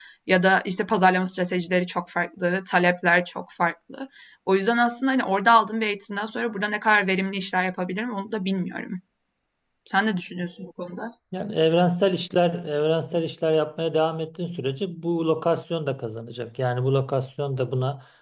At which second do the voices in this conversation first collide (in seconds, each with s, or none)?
none